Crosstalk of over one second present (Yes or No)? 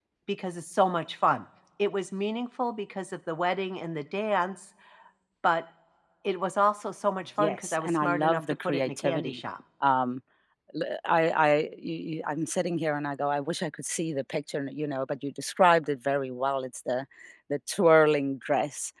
Yes